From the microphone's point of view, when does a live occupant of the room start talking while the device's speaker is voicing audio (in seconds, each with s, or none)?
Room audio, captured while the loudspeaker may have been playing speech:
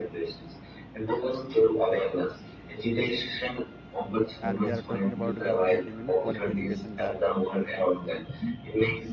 4.4 s